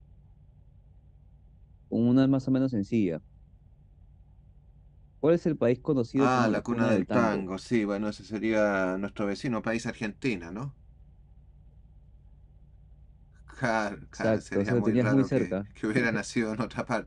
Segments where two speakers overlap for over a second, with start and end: 6.2-7.4, 14.2-15.6

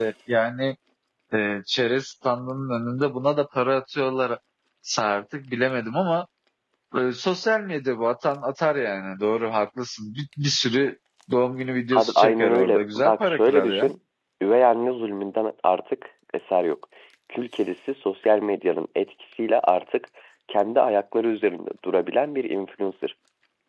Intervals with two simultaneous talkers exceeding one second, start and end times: 11.9-13.9

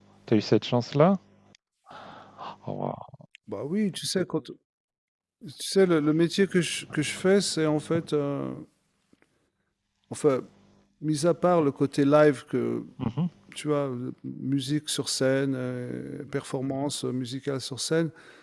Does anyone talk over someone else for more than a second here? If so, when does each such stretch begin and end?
none

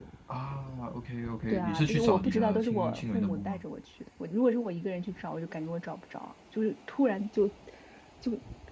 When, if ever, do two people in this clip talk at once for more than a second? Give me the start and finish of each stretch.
1.5-3.6

